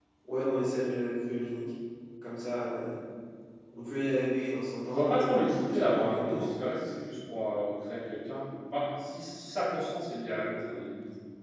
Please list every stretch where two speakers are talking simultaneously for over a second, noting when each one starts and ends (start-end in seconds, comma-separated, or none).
4.9-6.6